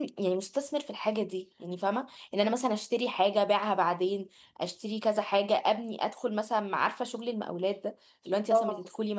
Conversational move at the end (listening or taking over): listening